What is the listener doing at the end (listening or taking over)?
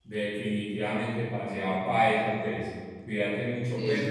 listening